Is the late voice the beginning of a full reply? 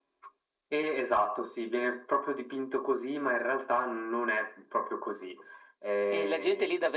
Yes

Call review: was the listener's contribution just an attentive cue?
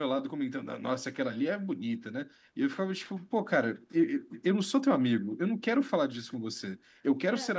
Yes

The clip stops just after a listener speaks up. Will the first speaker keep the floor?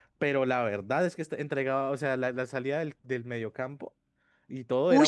No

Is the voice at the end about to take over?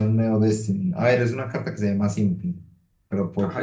Yes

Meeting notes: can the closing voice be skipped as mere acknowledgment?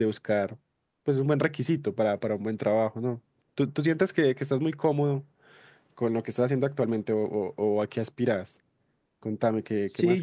No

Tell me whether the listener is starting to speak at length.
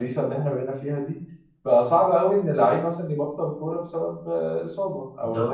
No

